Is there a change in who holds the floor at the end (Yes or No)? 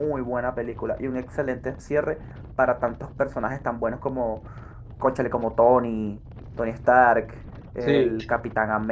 No